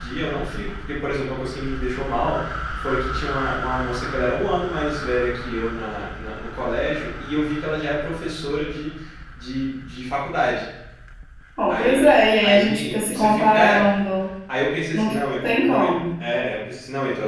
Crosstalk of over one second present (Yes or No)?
Yes